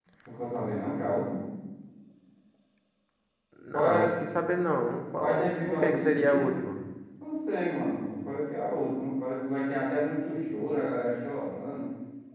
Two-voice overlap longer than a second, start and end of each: 5.2-6.6

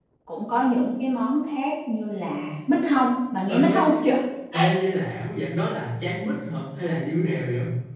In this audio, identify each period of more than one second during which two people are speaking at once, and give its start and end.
none

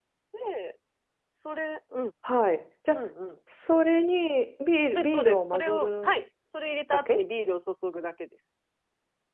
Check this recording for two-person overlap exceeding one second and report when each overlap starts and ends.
4.9-6.1

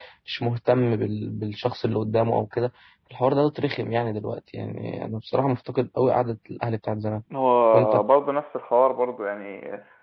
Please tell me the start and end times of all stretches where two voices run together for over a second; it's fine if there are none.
none

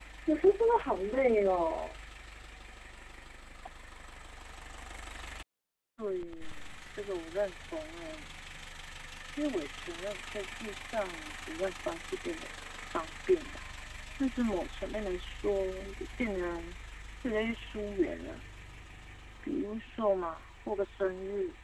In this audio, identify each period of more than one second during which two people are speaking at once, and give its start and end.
none

